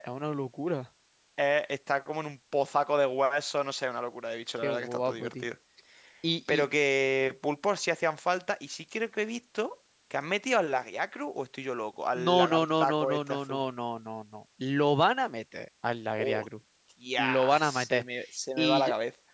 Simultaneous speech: Yes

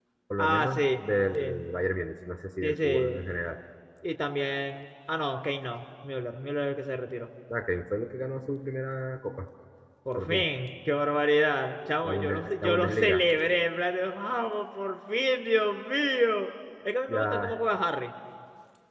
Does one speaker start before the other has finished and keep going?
Yes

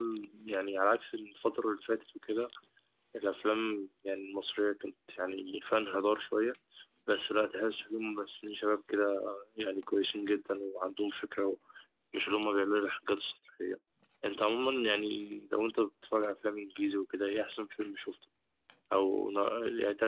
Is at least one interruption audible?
No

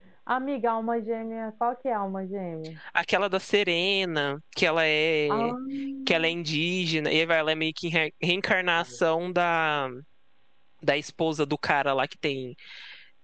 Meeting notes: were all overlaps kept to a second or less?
Yes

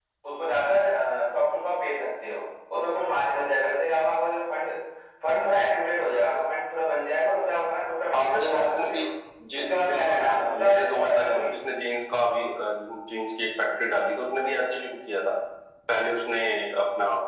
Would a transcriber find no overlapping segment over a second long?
No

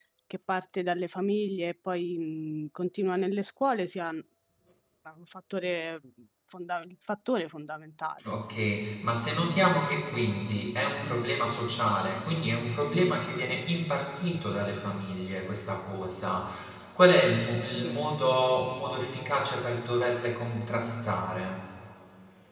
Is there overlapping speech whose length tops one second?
No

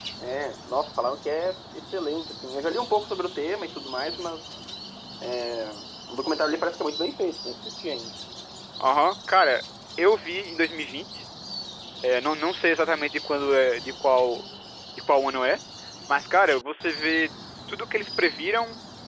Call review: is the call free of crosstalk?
Yes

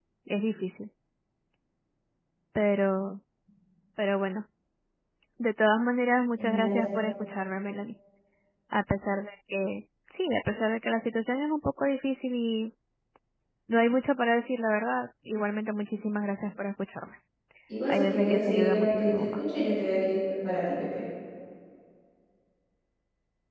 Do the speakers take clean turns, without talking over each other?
No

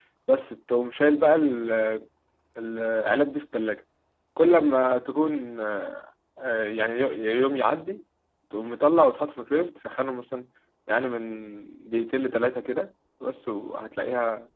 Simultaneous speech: No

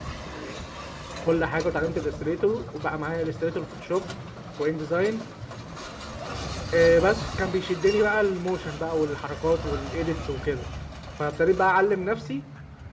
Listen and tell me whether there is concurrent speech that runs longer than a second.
No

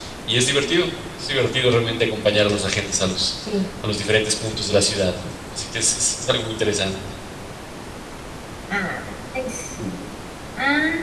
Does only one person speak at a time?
Yes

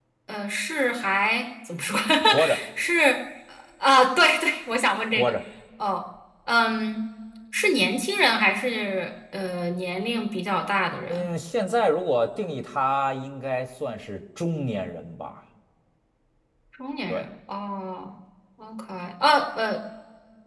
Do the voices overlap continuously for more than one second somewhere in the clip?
No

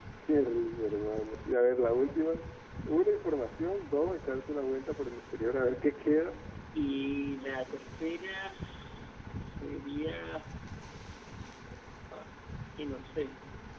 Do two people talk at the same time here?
No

